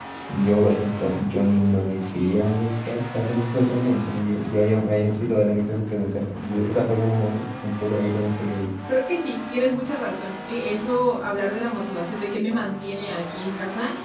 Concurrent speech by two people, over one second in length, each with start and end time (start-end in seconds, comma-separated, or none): none